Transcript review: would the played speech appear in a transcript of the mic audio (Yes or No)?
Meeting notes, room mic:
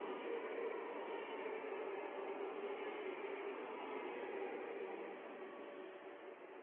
No